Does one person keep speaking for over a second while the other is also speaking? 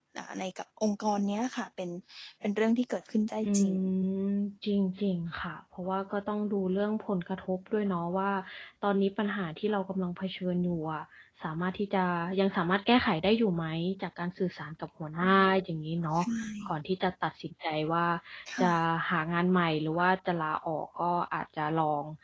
No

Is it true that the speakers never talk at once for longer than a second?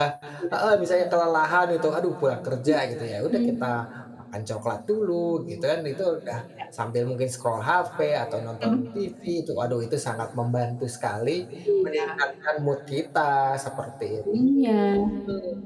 Yes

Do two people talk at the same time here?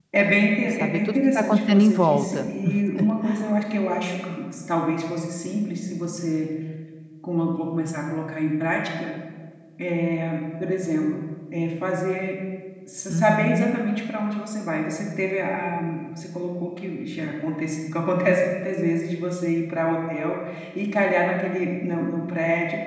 Yes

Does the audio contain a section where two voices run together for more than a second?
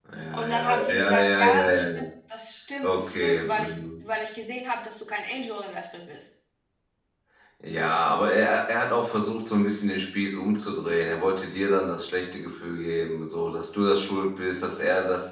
Yes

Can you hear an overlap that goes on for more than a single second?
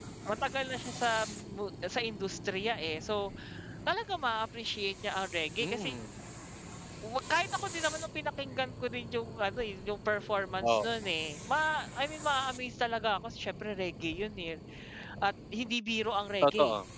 No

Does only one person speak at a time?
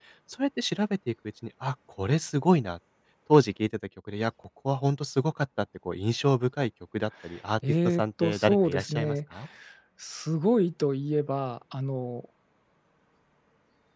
No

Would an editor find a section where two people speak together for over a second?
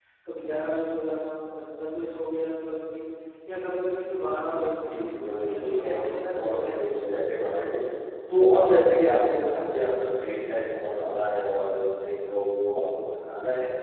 Yes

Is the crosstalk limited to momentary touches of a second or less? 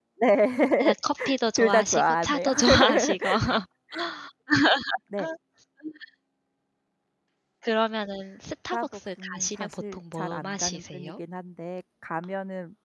No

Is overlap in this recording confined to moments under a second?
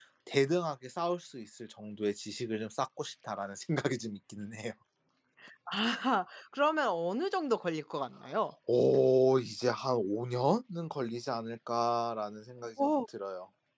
Yes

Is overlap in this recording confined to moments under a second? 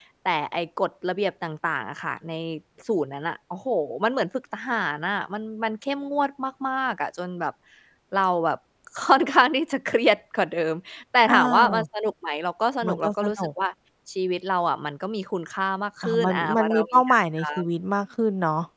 No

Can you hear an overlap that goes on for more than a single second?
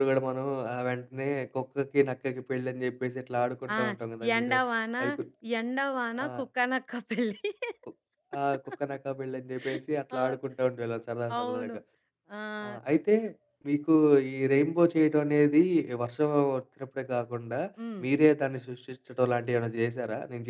No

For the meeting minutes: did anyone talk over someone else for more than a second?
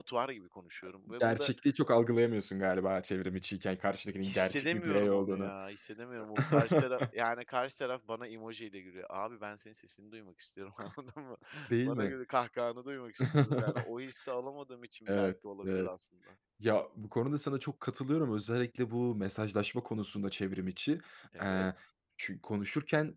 Yes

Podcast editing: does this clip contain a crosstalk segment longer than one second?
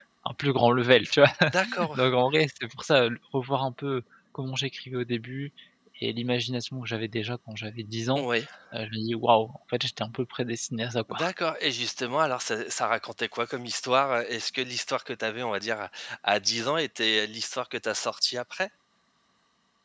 No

